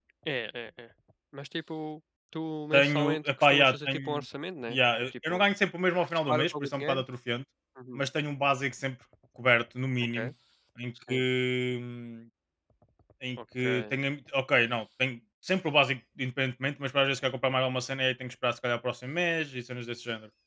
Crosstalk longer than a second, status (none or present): present